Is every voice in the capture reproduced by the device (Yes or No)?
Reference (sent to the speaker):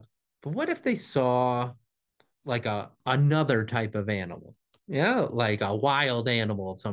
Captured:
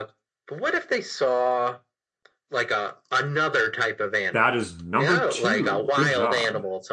No